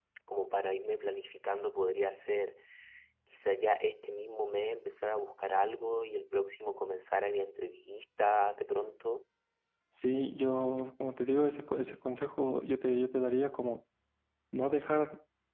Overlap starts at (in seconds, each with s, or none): none